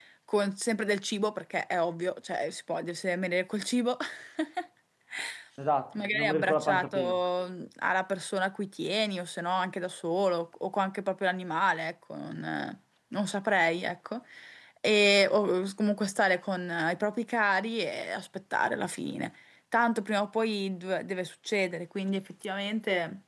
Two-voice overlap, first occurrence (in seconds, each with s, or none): 6.0 s